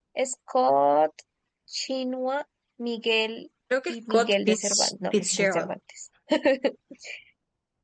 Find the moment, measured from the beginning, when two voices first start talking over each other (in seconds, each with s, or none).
3.9 s